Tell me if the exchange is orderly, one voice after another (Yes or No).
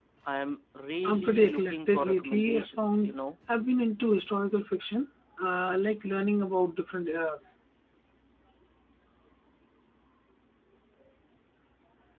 No